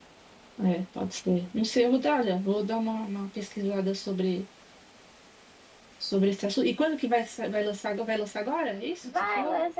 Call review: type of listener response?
taking over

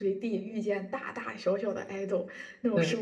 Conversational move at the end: listening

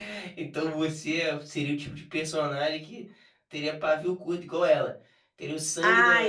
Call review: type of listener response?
taking over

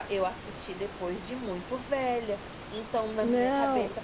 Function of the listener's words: listening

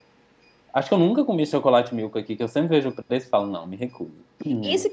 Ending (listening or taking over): taking over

